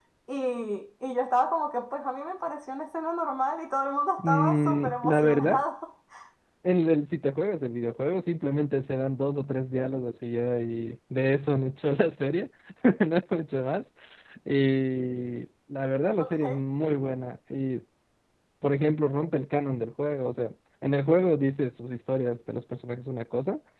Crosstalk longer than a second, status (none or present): present